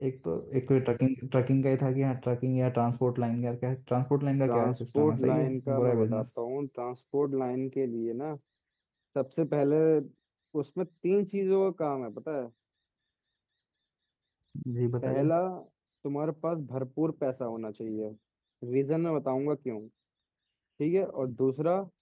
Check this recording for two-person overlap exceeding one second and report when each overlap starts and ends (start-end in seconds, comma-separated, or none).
4.5-6.2